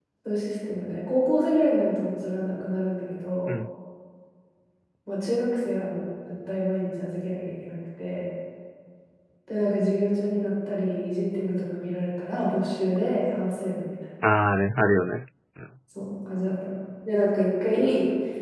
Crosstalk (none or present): none